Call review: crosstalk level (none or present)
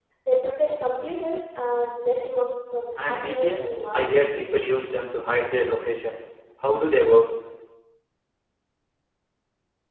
present